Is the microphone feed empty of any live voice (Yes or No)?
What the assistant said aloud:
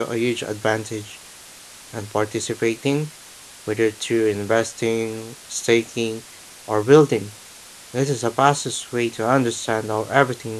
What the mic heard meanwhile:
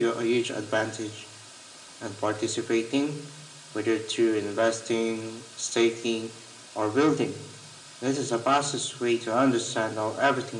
Yes